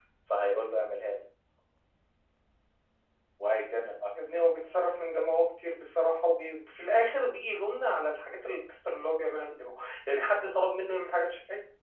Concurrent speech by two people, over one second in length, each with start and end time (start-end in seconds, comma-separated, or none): none